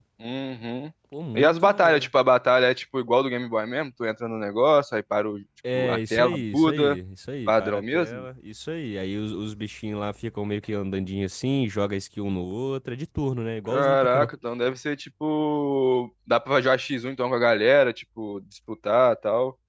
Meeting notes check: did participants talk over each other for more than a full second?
Yes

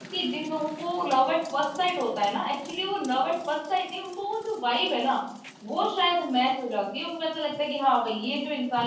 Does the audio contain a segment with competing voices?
No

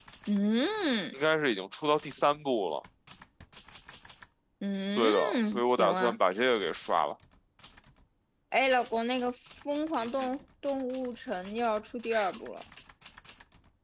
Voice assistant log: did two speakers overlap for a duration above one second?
Yes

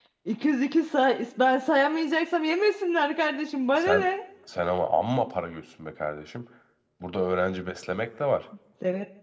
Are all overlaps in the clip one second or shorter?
Yes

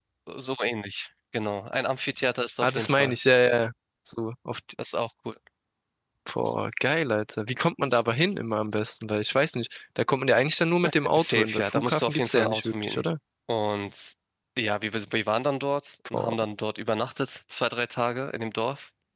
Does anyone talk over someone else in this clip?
Yes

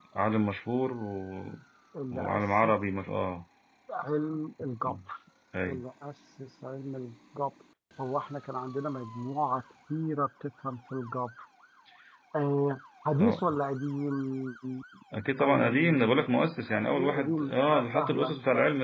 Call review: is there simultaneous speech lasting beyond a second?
Yes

